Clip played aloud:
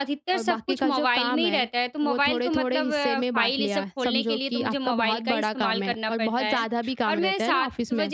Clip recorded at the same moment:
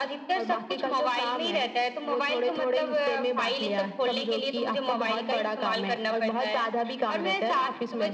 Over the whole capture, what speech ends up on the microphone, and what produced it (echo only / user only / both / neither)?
echo only